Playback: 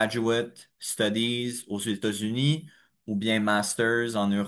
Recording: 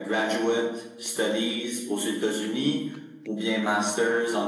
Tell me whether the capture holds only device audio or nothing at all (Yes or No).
Yes